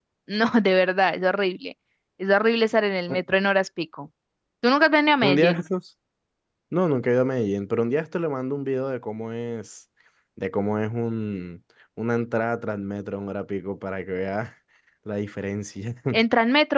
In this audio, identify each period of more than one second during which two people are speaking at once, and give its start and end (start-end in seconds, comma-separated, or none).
none